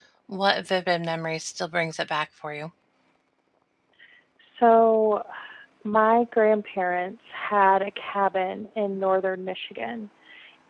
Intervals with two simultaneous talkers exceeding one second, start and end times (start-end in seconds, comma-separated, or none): none